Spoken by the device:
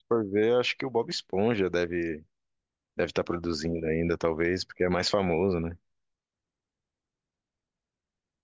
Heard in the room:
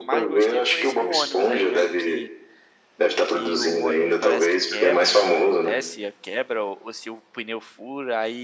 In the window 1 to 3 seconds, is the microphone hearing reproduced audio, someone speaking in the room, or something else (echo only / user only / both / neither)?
both